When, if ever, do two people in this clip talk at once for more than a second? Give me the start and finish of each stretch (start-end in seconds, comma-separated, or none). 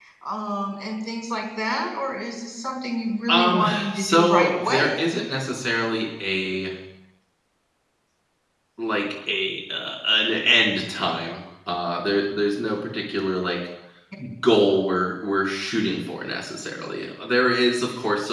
3.3-5.0